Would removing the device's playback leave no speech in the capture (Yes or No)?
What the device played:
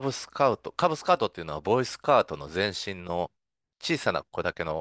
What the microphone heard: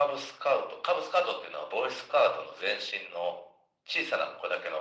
Yes